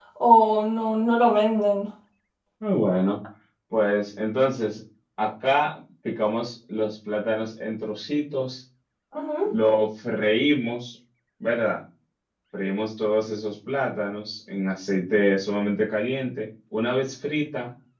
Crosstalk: none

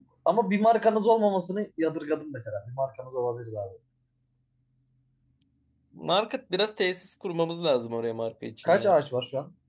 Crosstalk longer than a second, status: none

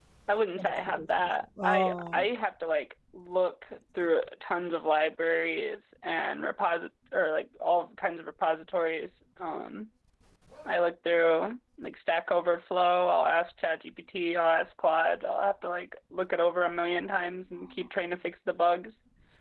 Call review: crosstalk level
present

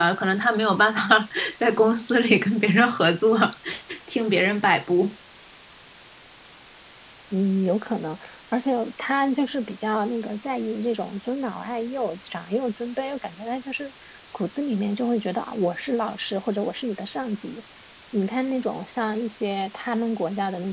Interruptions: none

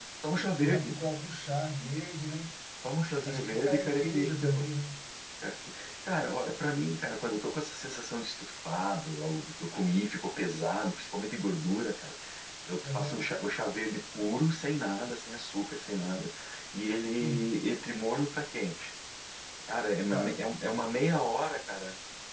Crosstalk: present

